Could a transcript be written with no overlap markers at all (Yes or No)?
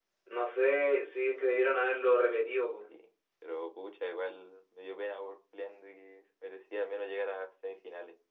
Yes